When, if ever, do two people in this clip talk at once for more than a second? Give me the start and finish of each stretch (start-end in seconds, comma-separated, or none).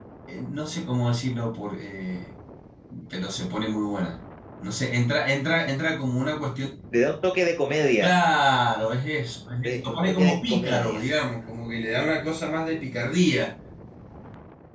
9.6-11.0